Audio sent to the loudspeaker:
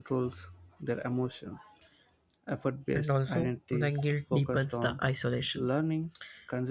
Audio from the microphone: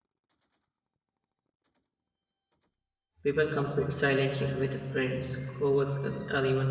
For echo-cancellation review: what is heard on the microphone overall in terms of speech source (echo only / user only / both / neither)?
user only